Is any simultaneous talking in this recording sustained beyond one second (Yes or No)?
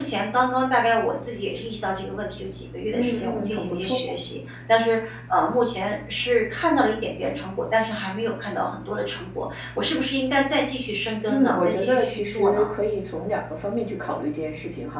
Yes